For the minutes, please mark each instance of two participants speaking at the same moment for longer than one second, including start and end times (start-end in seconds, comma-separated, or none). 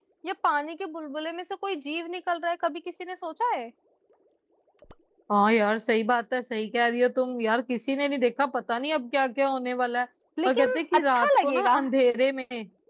10.5-11.8